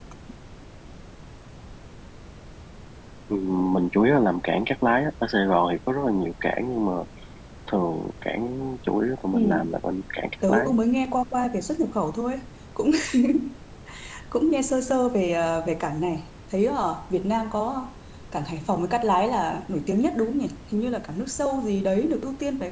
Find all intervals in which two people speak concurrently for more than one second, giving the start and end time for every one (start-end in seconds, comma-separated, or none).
none